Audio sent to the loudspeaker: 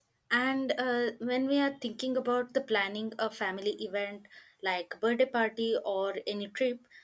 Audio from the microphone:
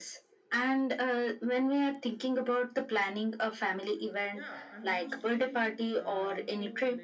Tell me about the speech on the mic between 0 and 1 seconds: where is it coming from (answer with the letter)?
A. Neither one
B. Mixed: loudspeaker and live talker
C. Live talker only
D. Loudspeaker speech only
D